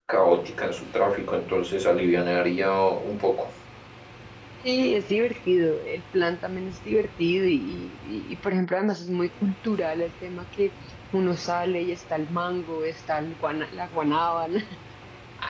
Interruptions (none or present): none